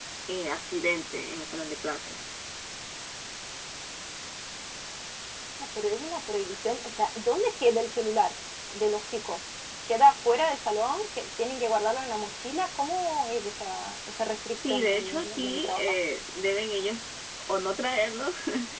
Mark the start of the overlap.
14.6 s

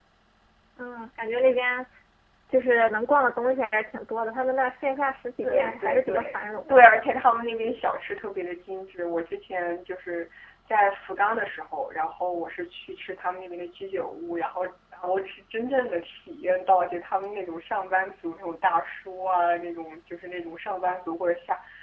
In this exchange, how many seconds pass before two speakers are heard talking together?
5.4 s

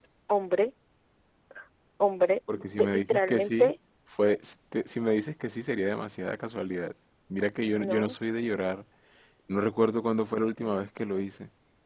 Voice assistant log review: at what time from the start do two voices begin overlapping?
2.5 s

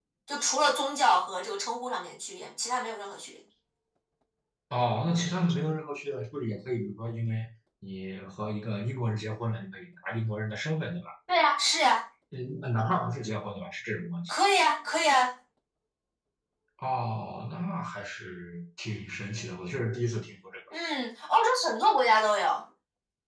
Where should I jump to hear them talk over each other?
none

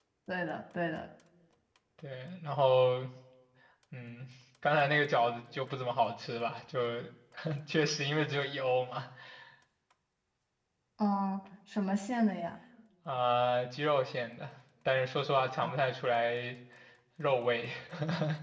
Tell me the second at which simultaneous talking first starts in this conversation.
none

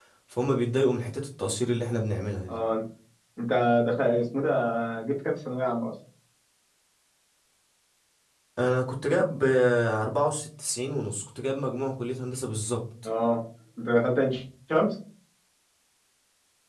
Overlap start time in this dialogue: none

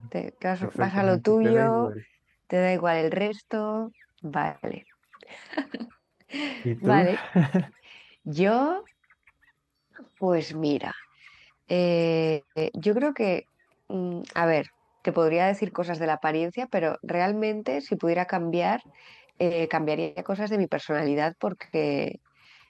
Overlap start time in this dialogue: 0.6 s

